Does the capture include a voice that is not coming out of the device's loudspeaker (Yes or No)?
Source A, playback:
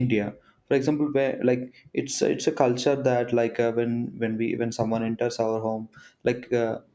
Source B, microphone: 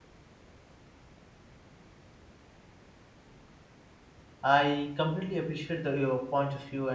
Yes